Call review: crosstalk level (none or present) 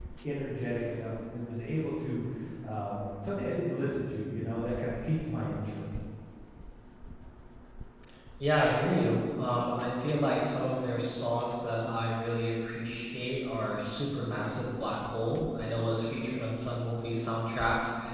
none